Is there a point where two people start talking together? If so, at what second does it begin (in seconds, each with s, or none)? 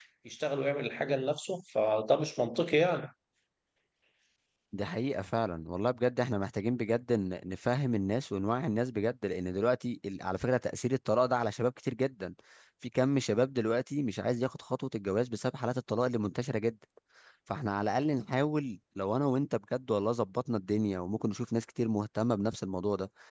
none